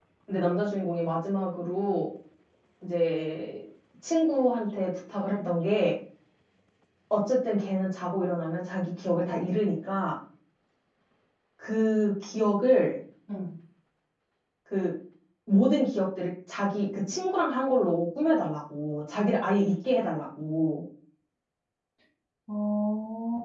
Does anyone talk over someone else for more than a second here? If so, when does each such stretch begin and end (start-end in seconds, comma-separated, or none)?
none